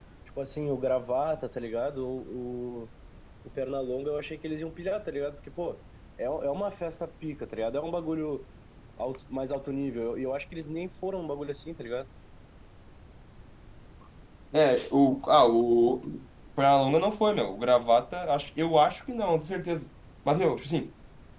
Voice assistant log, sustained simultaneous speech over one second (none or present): none